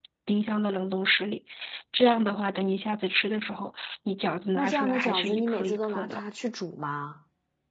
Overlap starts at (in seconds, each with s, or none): 4.5 s